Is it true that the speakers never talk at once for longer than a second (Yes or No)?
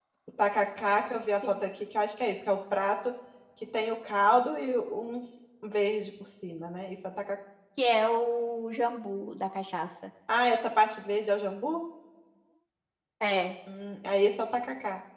Yes